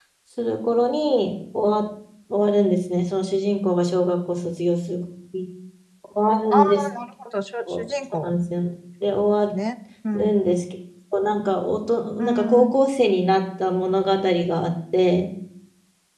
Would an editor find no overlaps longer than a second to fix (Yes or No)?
Yes